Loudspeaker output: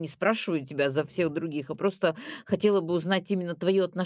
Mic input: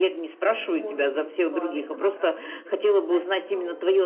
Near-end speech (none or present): present